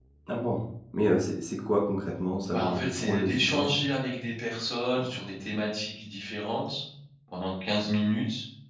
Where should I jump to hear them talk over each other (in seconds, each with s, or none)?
2.5 s